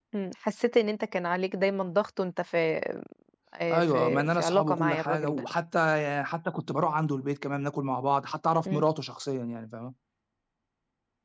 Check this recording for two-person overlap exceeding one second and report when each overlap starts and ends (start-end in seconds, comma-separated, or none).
3.7-5.4